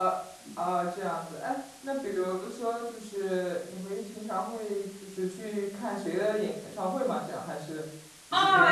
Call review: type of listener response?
taking over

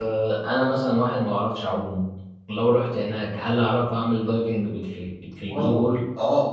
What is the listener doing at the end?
taking over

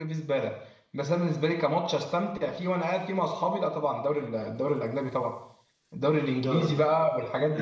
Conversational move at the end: listening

